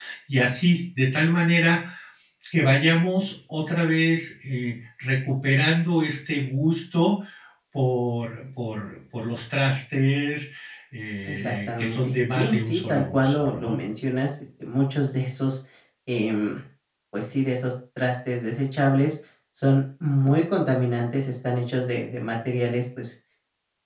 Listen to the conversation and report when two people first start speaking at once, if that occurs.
11.2 s

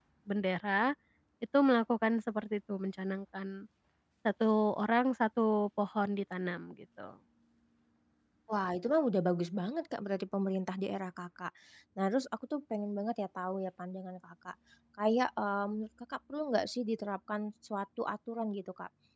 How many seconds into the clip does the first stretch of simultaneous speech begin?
none

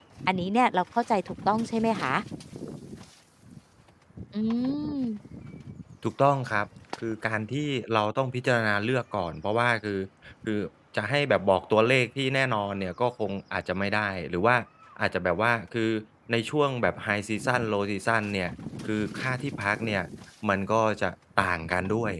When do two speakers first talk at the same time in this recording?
none

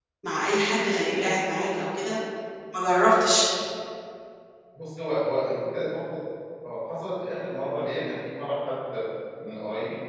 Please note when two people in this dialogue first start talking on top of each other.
none

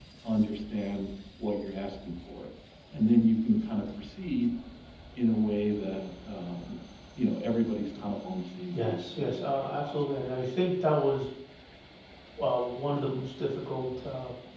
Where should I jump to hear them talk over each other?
8.7 s

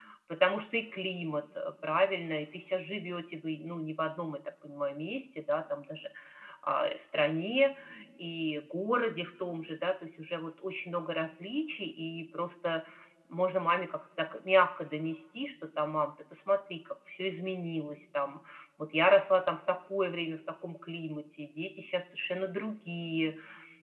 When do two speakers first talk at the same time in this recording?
none

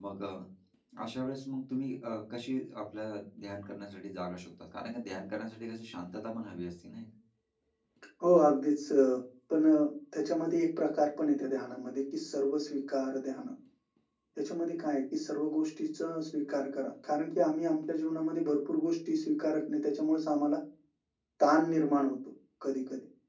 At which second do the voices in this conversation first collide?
none

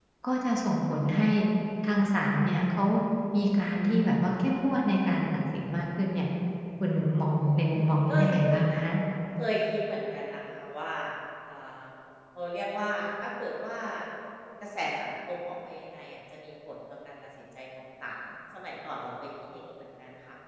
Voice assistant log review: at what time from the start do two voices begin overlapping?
7.4 s

